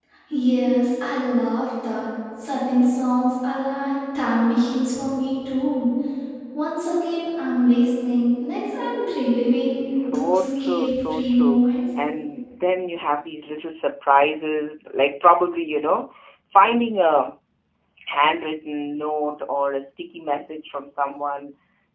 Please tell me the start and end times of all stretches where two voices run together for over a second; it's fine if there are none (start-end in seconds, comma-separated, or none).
10.1-11.7